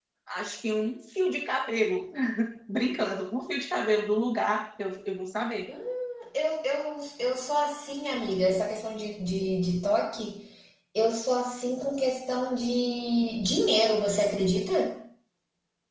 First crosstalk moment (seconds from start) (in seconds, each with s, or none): none